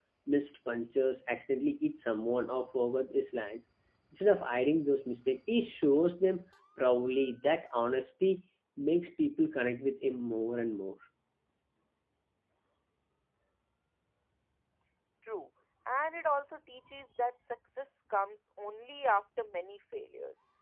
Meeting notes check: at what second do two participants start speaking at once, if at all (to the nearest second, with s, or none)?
none